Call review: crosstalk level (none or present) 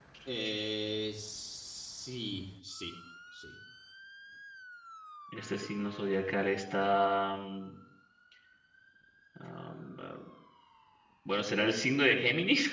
none